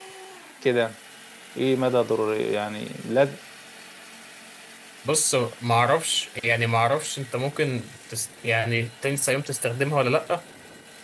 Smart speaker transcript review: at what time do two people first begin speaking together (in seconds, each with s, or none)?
none